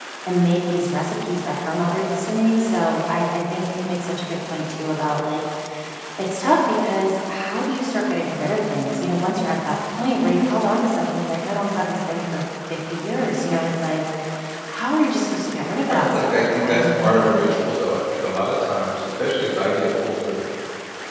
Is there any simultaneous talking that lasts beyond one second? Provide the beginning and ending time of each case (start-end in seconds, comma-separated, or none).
15.9-17.3